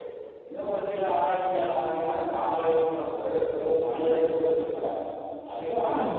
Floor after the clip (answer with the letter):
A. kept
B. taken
A